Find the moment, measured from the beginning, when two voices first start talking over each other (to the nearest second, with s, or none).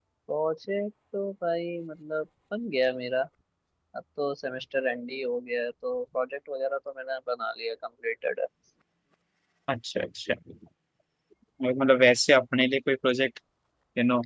none